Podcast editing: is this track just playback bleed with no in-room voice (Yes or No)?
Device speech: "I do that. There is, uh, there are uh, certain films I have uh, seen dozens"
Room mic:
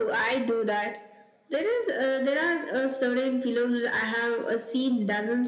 Yes